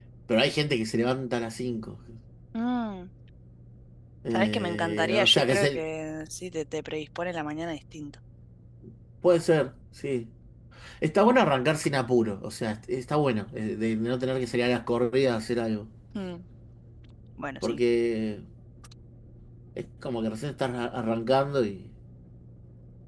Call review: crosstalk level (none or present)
present